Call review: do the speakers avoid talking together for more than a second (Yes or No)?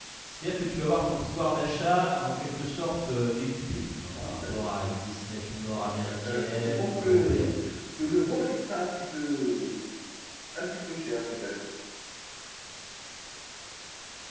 No